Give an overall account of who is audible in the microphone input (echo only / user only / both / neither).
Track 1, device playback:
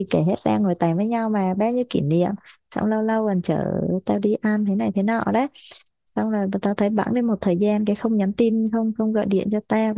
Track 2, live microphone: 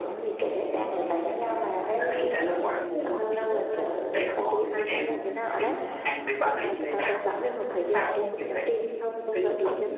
both